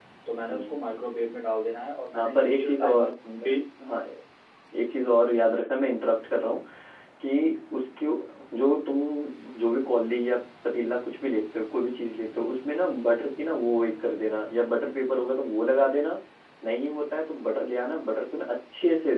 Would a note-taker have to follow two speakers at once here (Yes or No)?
Yes